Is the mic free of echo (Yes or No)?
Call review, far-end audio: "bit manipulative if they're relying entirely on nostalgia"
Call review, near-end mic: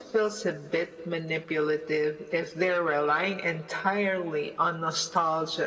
No